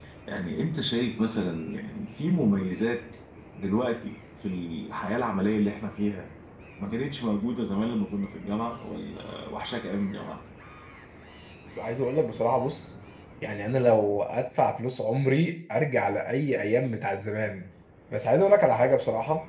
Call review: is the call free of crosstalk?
Yes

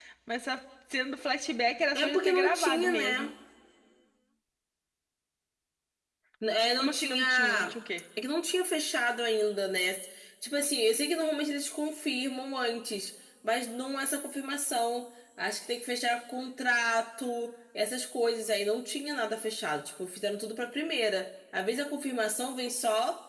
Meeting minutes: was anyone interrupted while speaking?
Yes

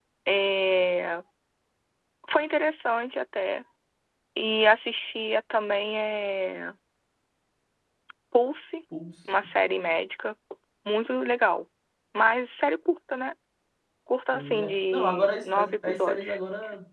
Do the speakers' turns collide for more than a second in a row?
Yes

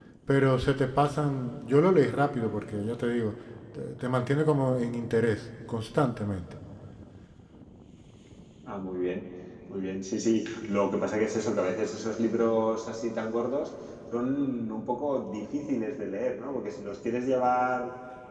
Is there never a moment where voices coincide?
Yes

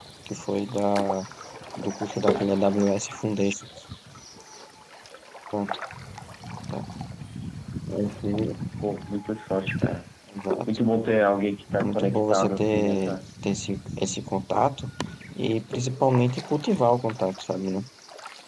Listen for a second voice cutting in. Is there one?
Yes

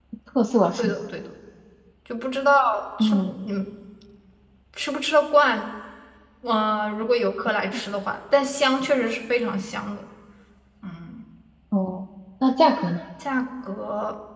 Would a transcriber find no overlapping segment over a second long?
Yes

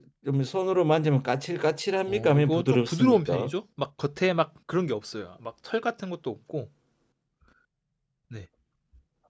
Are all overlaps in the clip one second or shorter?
No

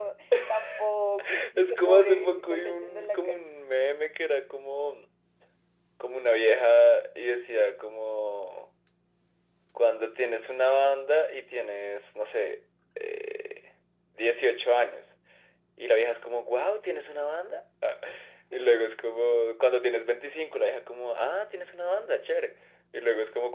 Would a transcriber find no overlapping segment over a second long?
No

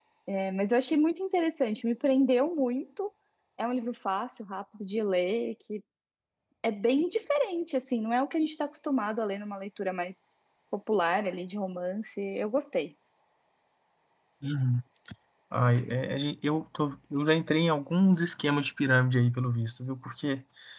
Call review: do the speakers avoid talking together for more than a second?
Yes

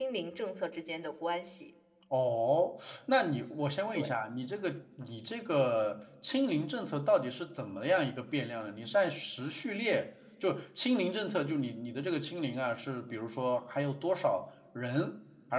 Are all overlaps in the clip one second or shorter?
Yes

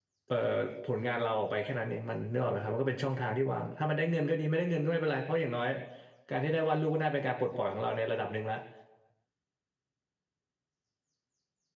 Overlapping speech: No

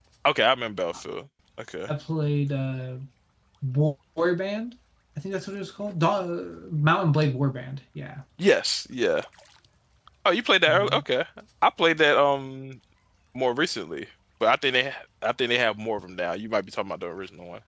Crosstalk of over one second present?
No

